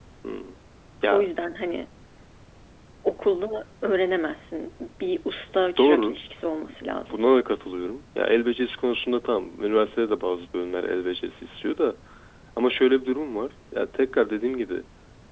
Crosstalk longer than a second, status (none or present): none